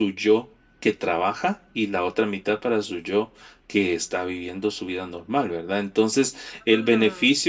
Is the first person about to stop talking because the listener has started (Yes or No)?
No